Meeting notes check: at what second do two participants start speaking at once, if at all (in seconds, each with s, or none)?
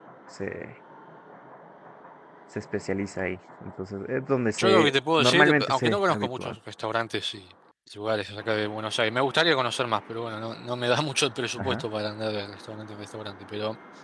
4.6 s